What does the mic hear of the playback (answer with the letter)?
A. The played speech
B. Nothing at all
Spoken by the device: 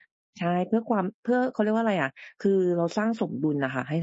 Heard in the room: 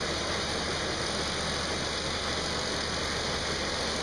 B